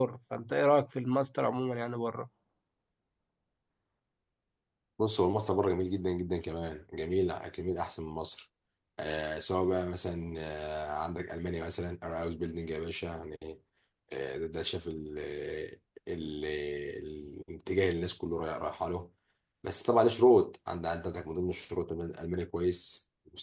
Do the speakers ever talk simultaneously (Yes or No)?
No